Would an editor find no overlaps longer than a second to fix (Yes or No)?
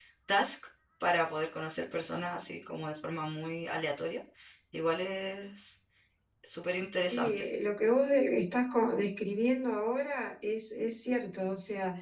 Yes